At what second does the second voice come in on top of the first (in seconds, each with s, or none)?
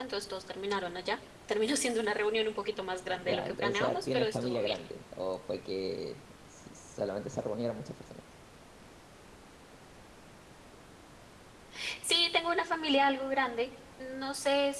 3.0 s